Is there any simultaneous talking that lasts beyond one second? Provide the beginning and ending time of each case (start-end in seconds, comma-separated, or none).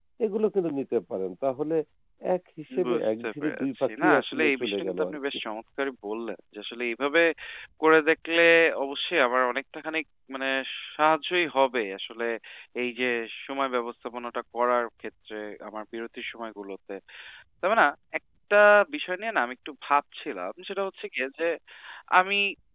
2.9-5.2